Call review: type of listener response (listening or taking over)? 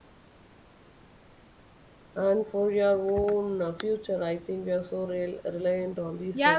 taking over